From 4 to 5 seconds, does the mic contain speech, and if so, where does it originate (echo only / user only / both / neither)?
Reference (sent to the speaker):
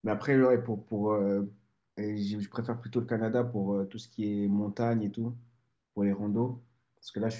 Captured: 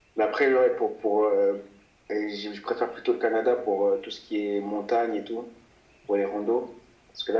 echo only